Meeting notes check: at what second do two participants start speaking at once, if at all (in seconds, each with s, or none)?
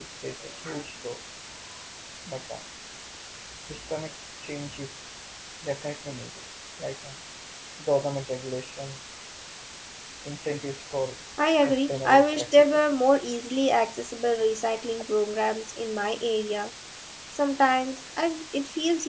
11.4 s